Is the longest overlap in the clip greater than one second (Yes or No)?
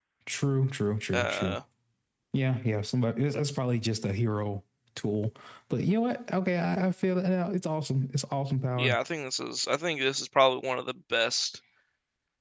No